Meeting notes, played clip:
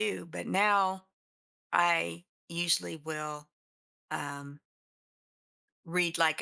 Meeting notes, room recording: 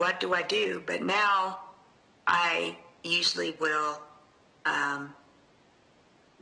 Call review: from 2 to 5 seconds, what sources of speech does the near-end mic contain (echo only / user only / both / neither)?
echo only